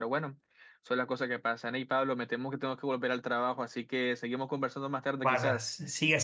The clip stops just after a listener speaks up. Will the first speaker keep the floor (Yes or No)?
No